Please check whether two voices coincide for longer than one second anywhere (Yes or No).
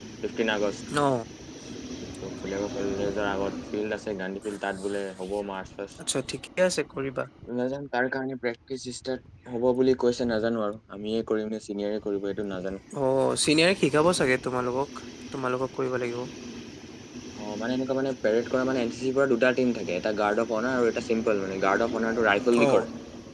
No